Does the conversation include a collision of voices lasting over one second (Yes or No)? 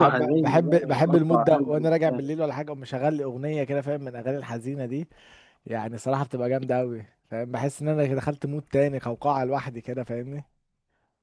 Yes